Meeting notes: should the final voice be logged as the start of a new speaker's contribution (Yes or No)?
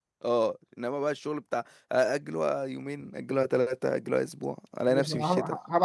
Yes